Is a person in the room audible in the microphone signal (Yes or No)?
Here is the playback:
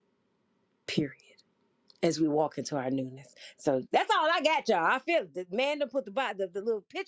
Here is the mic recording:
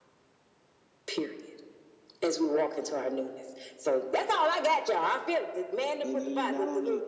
Yes